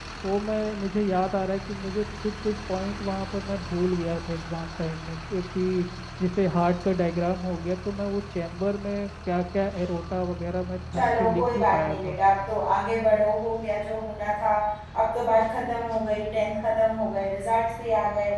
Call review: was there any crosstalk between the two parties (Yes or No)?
Yes